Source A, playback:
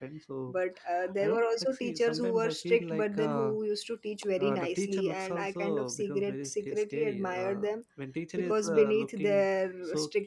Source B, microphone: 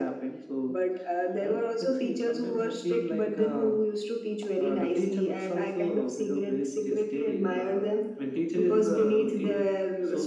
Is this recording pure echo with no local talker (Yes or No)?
Yes